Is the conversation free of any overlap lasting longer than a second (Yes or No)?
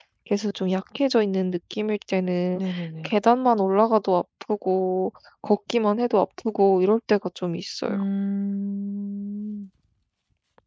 Yes